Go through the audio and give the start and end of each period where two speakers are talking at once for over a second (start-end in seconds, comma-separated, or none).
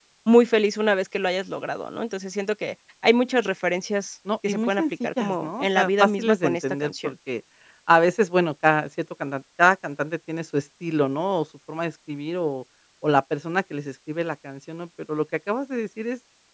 4.5-7.1